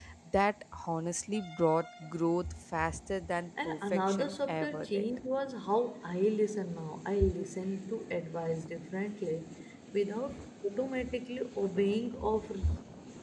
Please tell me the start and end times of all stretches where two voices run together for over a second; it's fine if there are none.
3.6-5.0

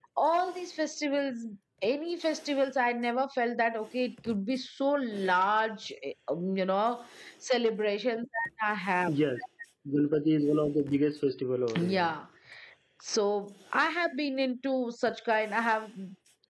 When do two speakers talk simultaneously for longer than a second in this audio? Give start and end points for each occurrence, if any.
none

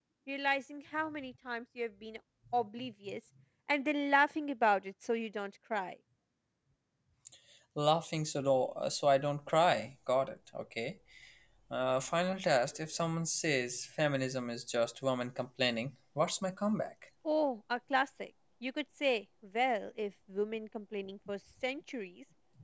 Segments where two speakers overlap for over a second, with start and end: none

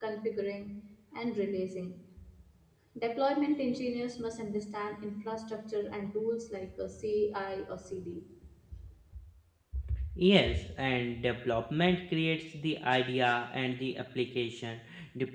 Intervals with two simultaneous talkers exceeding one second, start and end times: none

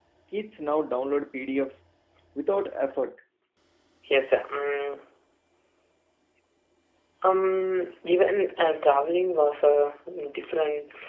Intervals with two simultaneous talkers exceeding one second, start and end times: none

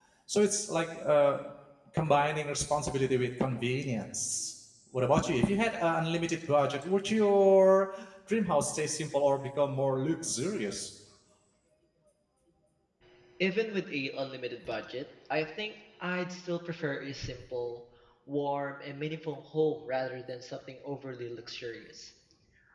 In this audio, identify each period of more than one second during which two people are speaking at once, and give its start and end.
none

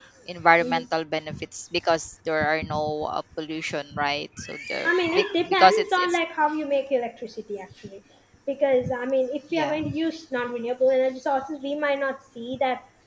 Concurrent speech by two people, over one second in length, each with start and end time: 4.8-6.2

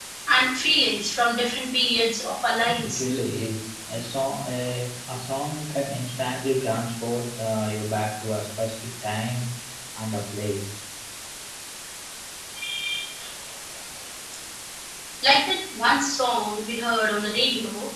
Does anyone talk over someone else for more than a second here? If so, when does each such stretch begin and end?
none

